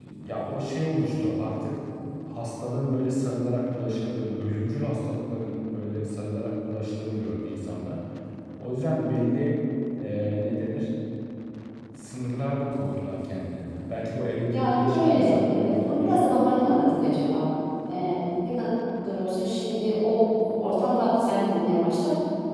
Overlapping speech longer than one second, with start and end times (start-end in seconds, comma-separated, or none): 14.5-16.3